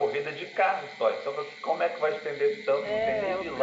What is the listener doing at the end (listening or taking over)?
taking over